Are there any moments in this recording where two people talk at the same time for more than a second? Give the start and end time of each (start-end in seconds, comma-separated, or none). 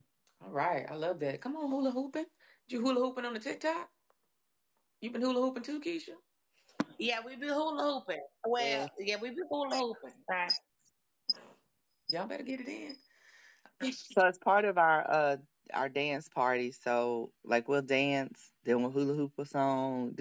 none